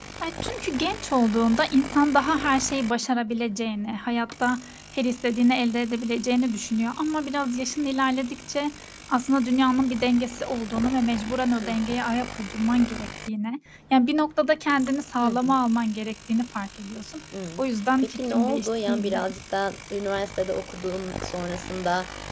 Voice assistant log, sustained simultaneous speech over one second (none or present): present